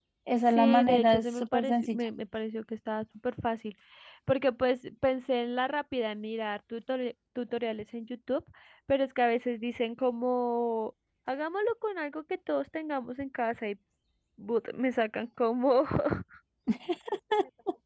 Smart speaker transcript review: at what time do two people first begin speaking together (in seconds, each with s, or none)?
0.6 s